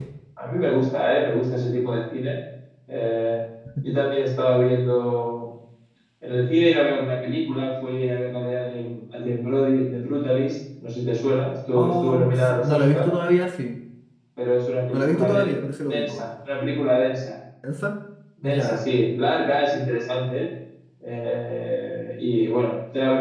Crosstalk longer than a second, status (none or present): present